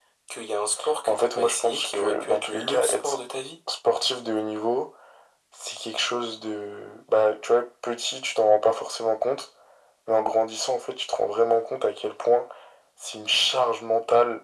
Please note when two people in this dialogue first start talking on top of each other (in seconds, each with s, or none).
1.1 s